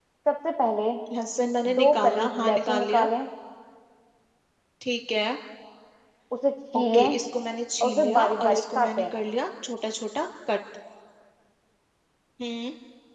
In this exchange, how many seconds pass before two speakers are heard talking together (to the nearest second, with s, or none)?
2 s